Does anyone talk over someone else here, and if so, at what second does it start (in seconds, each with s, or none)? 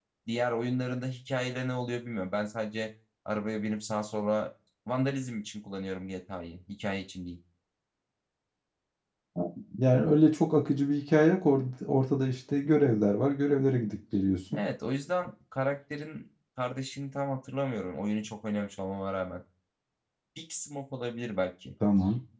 none